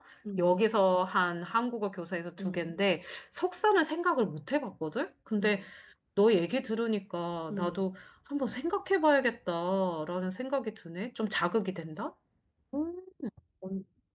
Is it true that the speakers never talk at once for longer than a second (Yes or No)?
Yes